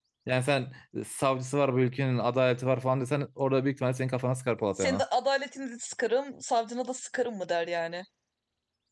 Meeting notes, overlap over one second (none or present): none